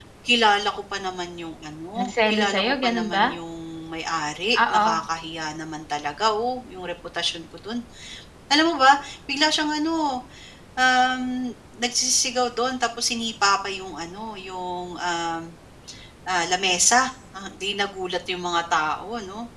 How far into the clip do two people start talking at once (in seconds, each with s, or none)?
2.0 s